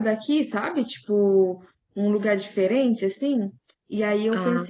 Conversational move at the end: listening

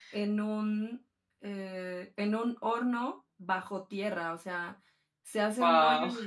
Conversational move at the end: listening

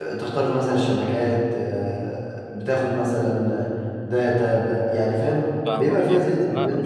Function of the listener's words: taking over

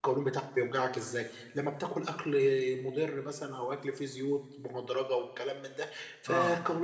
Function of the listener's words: listening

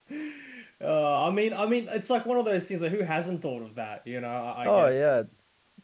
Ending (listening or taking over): taking over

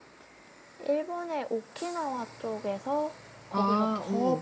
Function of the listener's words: listening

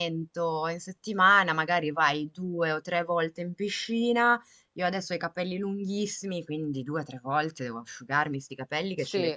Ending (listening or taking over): listening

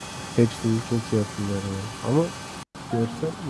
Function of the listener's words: listening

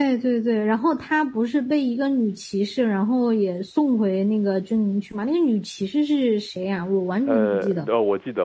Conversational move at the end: taking over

